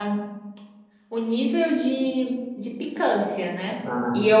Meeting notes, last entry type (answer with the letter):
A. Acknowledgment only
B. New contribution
A